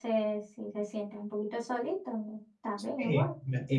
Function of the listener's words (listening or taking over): taking over